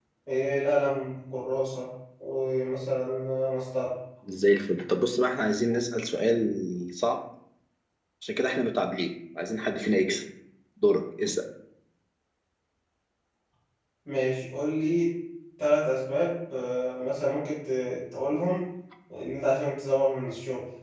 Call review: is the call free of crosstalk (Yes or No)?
Yes